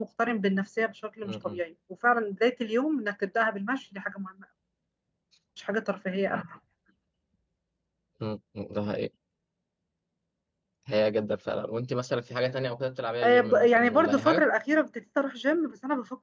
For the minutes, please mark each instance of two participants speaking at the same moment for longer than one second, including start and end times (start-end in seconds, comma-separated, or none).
13.2-14.4